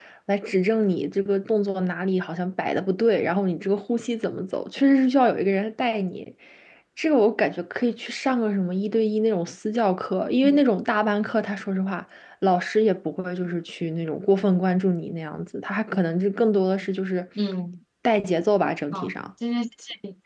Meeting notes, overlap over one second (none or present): none